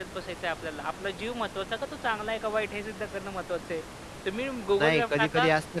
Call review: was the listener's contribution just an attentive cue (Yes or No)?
No